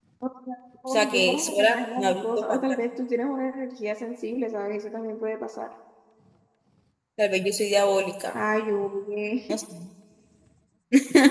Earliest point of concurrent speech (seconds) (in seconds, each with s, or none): 0.9 s